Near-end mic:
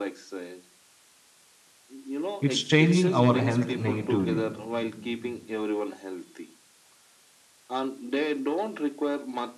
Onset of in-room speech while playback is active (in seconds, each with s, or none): 2.4 s